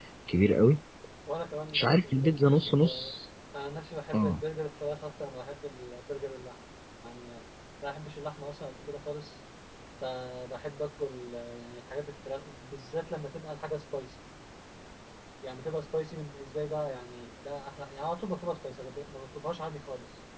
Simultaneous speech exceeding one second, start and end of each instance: 1.7-3.1

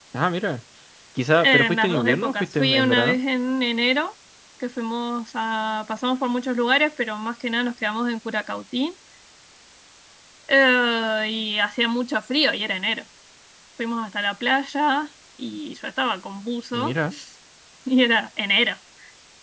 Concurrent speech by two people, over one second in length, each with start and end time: 1.4-3.2

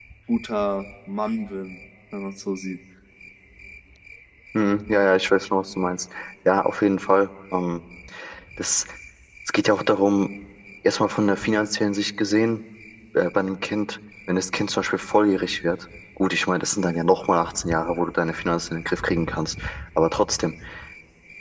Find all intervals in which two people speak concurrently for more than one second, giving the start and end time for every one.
none

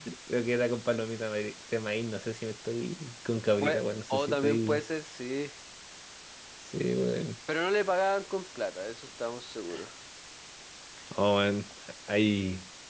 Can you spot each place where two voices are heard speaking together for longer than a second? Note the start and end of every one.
3.6-4.8

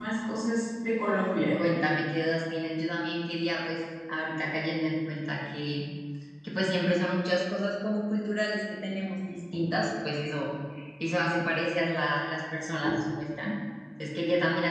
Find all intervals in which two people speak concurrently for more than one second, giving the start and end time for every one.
none

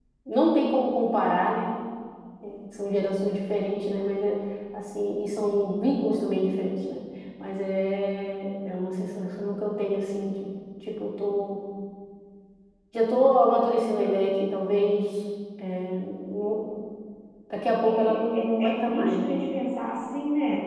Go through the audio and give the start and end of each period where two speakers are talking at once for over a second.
17.9-19.3

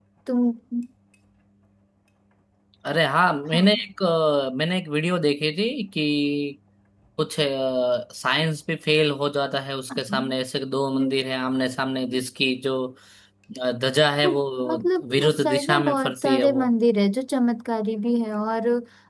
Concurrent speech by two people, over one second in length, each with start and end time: 15.1-16.6

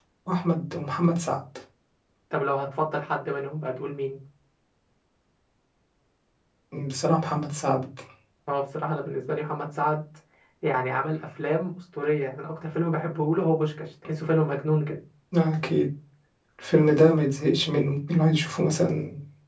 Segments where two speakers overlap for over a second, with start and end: none

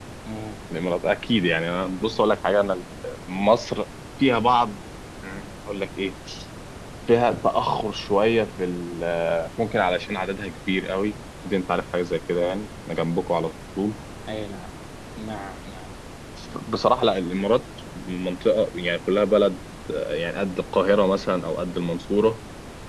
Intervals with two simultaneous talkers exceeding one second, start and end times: none

